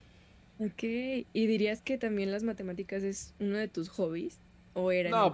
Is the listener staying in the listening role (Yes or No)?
No